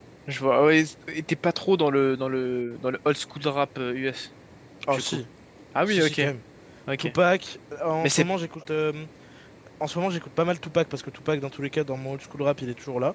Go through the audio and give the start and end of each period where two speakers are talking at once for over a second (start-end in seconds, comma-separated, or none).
none